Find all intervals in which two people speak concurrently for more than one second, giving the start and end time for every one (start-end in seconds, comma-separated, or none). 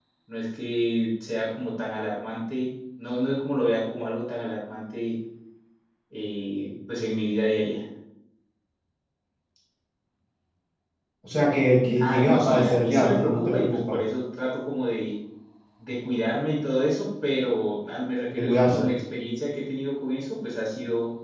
12.0-14.0